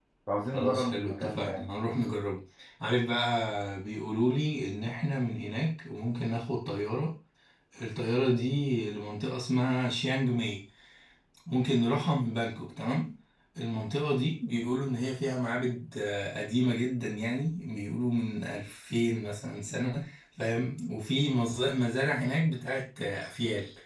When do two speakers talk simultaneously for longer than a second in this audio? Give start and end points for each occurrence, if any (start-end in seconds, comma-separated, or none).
0.5-1.8